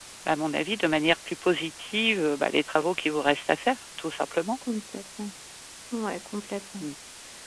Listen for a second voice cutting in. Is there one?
No

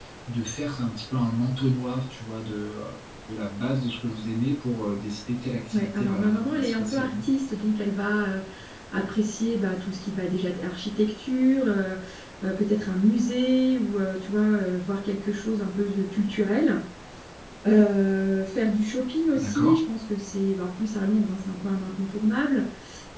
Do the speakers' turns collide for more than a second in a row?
Yes, from 5.7 s

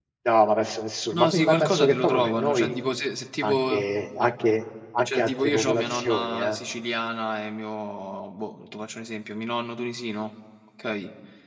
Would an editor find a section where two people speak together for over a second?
Yes, from 1.1 s

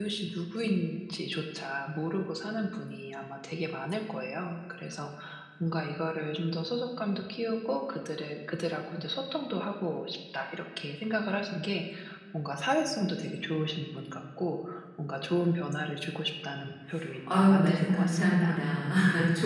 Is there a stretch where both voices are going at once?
Yes, from 17.3 s

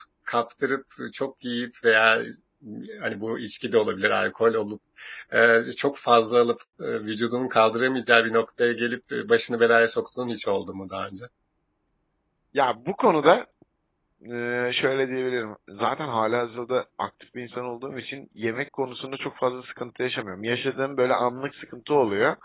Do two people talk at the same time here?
No

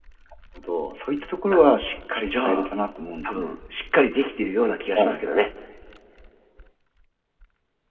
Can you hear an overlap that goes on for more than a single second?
No

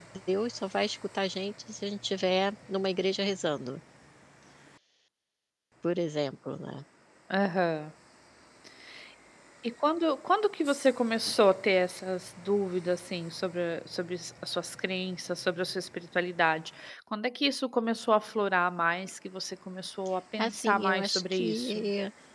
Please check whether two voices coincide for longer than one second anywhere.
Yes, from 20.4 s

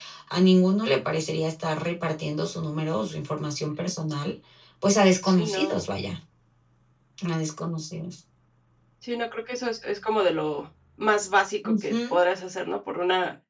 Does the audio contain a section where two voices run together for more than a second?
No

